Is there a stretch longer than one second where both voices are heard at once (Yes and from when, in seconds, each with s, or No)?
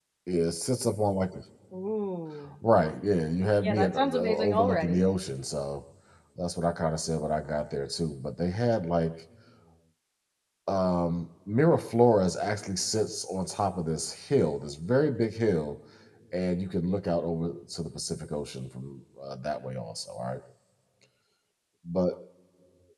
Yes, from 3.6 s